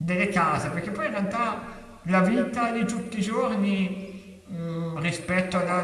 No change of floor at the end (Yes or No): Yes